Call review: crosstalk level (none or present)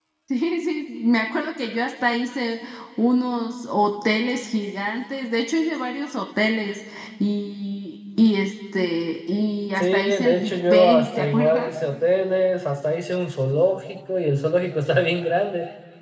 present